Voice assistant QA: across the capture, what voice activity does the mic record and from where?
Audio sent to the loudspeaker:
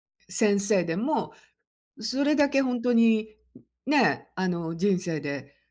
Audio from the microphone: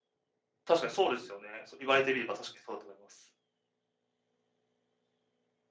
user only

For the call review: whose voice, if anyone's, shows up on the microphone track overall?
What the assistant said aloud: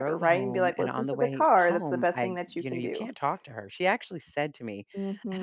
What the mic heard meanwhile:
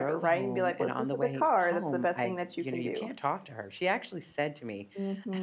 echo only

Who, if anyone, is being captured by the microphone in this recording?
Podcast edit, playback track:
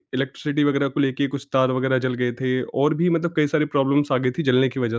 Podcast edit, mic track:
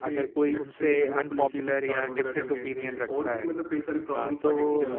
both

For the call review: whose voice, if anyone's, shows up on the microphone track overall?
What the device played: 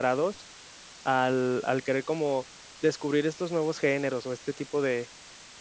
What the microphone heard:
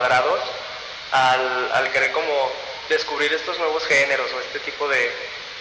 echo only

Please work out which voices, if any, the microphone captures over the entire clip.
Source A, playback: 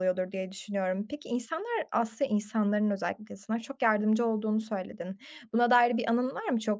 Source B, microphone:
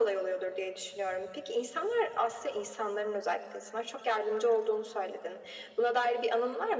echo only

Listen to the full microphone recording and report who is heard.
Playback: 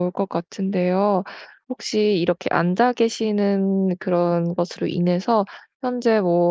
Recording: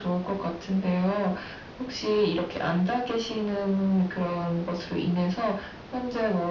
echo only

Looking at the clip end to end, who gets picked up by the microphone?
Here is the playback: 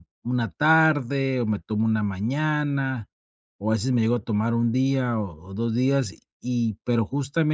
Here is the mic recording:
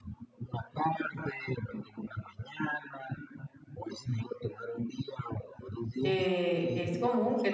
both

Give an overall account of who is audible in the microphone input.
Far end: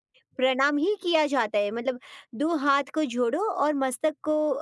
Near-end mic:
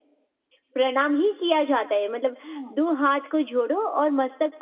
both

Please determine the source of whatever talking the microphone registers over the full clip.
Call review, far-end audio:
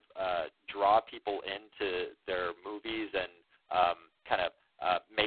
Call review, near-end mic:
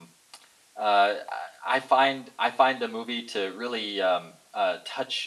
user only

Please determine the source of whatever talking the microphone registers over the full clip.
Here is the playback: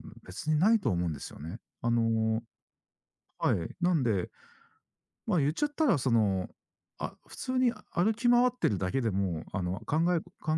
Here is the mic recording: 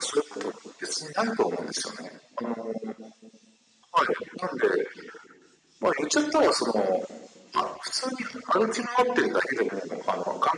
echo only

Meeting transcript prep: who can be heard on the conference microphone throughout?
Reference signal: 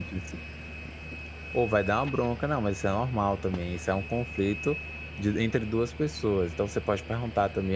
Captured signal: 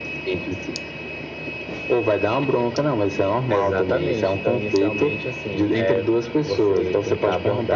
both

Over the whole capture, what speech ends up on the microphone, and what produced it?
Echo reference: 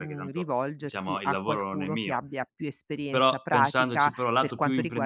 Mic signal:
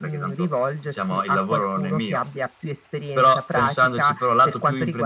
echo only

